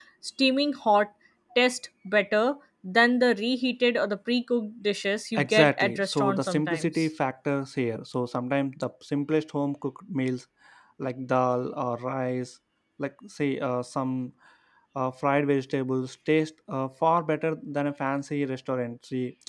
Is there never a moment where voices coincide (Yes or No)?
No